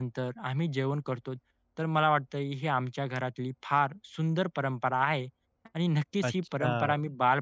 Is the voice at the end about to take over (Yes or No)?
No